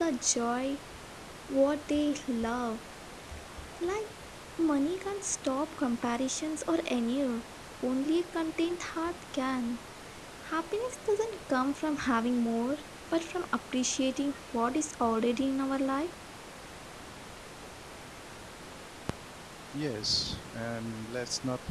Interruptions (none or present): none